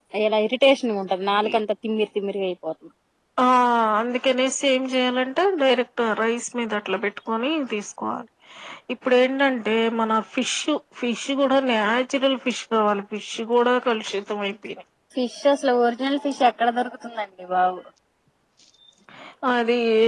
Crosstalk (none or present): none